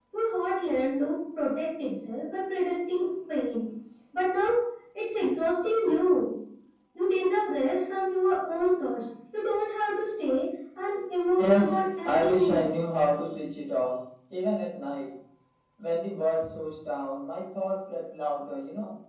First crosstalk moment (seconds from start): 11.4 s

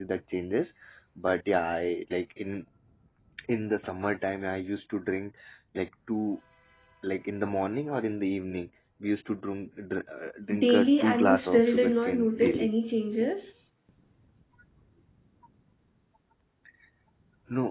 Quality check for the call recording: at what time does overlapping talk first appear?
10.5 s

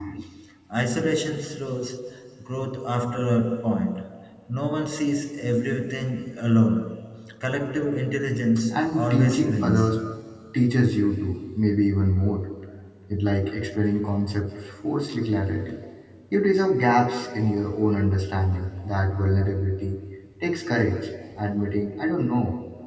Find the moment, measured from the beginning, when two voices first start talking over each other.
8.7 s

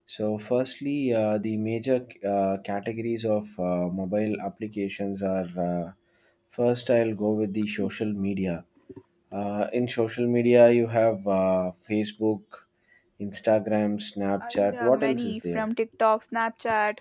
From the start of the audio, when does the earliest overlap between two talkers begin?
14.4 s

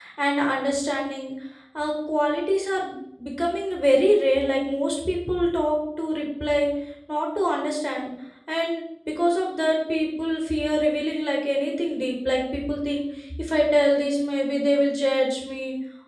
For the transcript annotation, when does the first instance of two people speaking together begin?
none

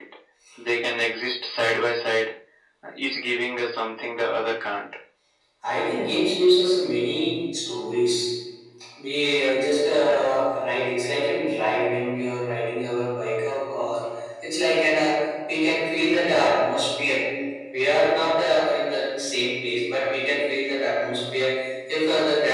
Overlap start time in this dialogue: none

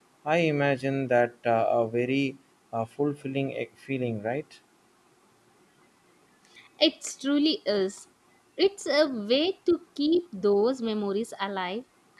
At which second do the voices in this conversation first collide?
none

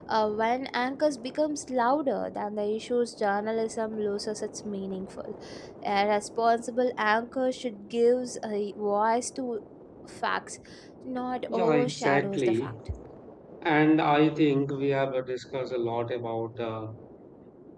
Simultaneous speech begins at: 11.5 s

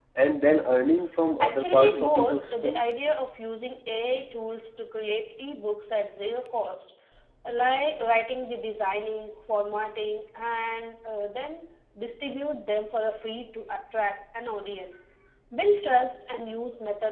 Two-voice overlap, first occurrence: 1.4 s

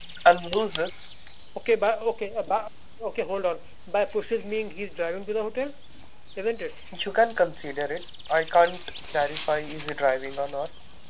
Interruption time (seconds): none

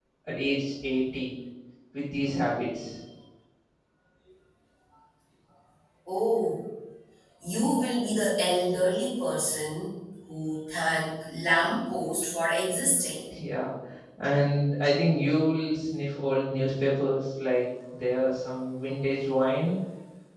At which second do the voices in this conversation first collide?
none

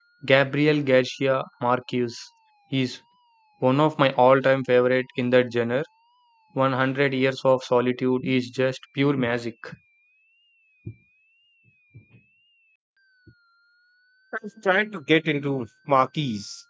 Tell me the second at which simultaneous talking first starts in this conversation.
none

